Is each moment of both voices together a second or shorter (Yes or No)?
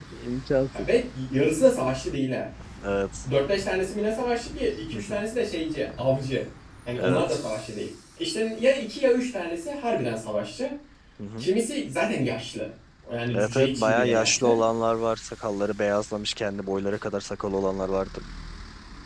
No